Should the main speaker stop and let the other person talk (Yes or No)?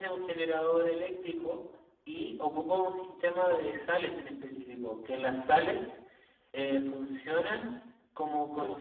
No